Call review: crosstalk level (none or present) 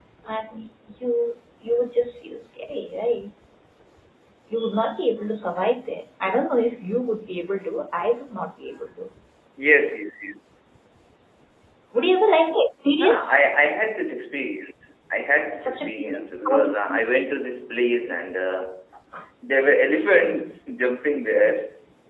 present